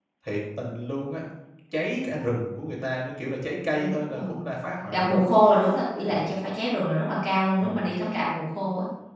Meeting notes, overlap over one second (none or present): none